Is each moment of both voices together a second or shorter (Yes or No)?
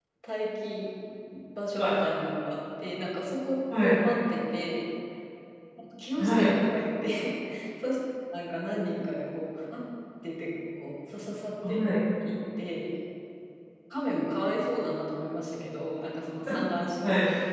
Yes